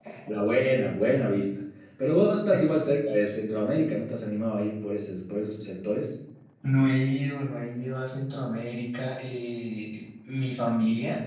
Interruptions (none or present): none